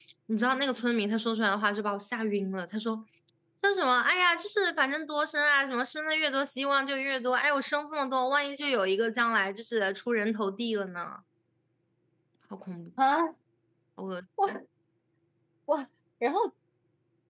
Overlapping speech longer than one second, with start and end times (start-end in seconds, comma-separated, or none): none